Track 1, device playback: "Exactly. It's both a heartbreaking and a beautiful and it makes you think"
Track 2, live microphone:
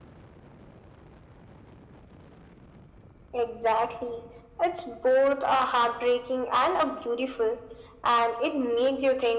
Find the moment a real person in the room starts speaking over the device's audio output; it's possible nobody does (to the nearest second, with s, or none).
none